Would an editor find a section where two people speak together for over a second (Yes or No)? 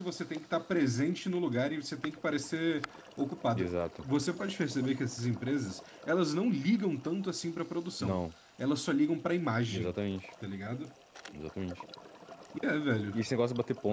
No